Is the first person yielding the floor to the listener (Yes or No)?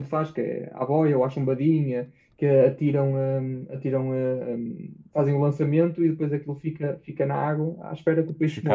Yes